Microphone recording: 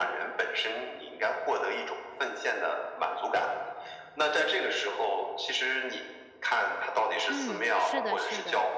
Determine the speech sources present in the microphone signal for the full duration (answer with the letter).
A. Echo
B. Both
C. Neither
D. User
B